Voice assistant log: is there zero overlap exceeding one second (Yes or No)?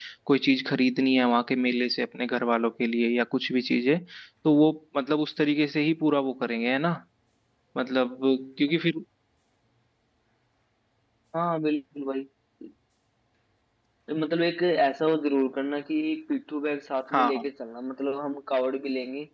Yes